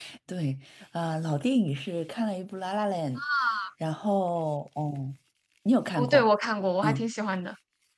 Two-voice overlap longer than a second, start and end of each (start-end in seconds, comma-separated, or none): none